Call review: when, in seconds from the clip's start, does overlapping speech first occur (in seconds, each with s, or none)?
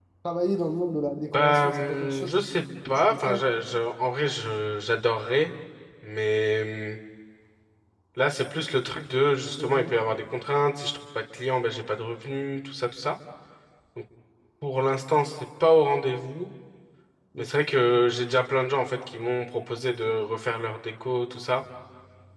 1.3 s